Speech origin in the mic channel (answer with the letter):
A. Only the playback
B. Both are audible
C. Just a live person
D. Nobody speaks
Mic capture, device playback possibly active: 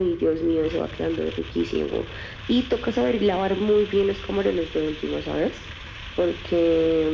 A